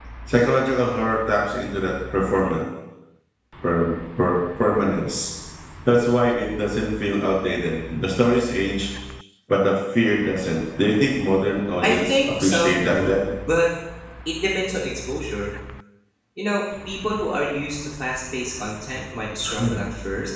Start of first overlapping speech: 11.8 s

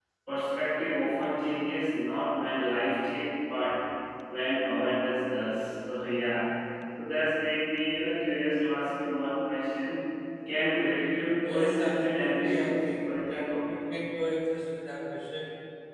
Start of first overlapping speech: 11.4 s

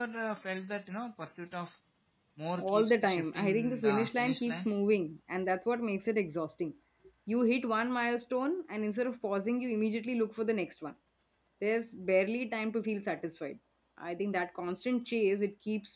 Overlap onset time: 2.6 s

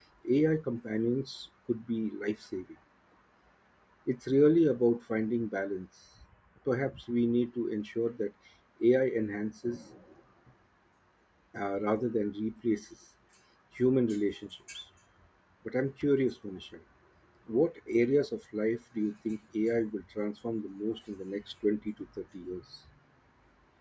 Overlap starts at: none

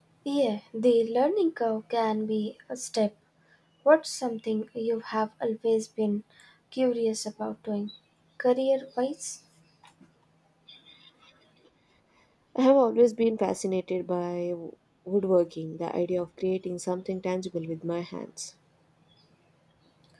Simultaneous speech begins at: none

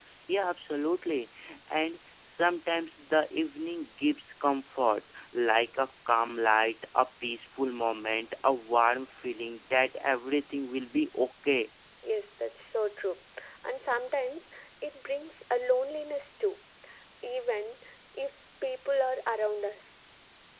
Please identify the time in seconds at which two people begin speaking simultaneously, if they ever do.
none

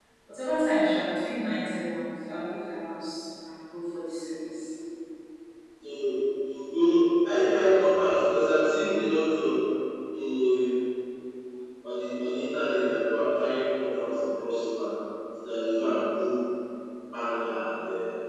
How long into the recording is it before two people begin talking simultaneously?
none

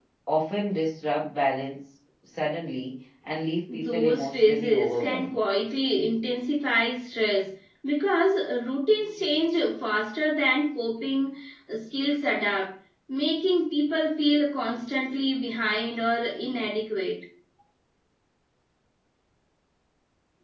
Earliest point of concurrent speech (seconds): 3.7 s

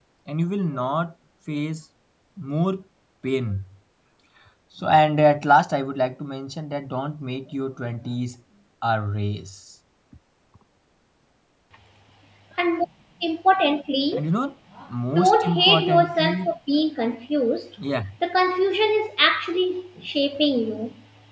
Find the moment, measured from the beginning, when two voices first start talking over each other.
15.2 s

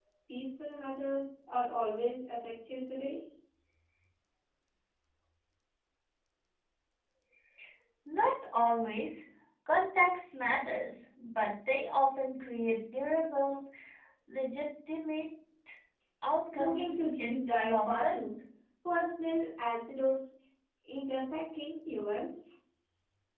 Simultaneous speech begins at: 16.5 s

